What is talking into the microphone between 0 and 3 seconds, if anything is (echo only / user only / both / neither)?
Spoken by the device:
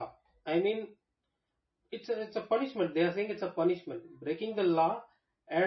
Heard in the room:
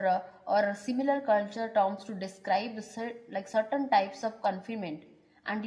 user only